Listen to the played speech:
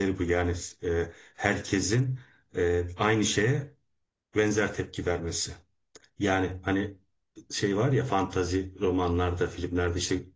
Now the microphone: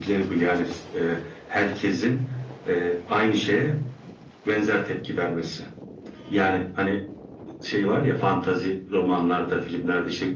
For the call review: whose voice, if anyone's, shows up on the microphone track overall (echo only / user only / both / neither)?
echo only